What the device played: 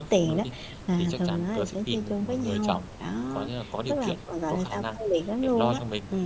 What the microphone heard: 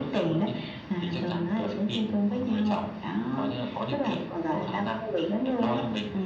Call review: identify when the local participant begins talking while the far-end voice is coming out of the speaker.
none

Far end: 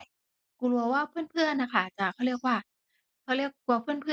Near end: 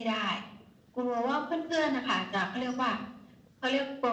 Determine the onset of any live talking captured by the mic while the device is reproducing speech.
none

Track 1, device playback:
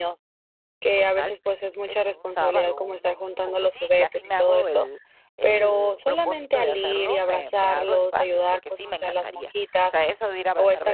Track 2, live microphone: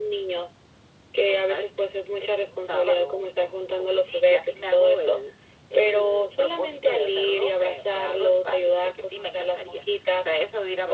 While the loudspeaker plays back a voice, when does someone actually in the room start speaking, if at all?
none

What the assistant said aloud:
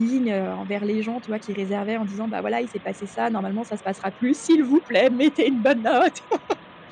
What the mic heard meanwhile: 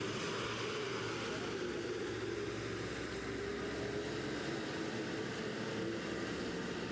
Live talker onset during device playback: none

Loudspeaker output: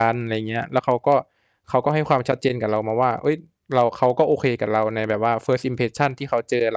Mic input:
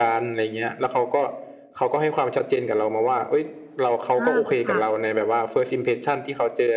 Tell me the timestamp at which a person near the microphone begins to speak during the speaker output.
4 s

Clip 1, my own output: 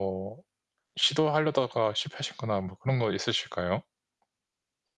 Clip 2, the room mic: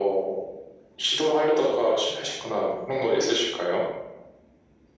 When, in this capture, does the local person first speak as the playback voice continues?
none

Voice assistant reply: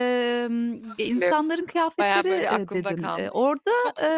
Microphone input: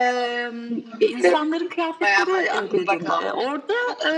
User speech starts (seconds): none

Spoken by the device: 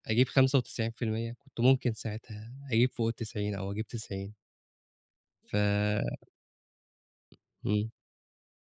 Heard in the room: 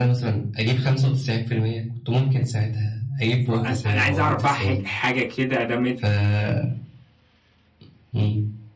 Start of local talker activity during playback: 4 s

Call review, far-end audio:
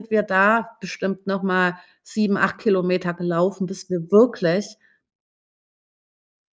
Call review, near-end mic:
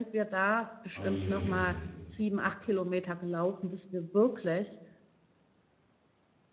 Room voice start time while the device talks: 1 s

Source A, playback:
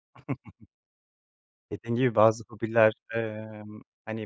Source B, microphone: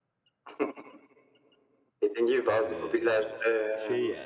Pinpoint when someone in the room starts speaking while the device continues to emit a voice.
3 s

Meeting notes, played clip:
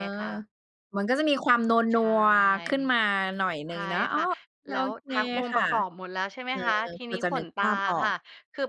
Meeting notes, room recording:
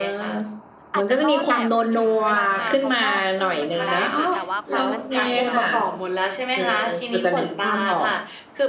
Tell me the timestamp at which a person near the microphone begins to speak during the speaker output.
1 s

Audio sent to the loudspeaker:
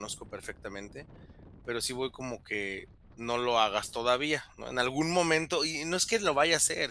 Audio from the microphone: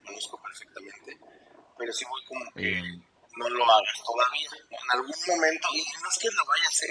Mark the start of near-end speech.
3 s

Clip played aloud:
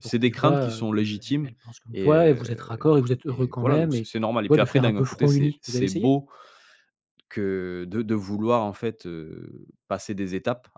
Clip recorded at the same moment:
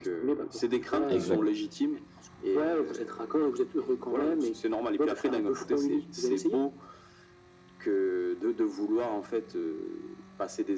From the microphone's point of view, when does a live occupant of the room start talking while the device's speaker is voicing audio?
1 s

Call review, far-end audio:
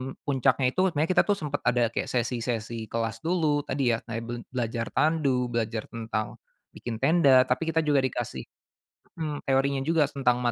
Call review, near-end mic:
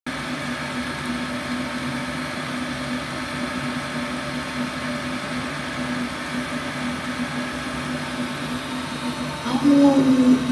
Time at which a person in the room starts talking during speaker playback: 9 s

